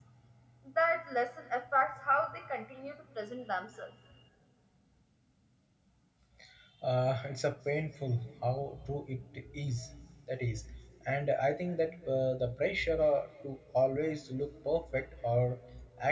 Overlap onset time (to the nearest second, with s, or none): none